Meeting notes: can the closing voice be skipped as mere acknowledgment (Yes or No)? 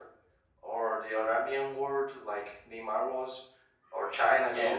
Yes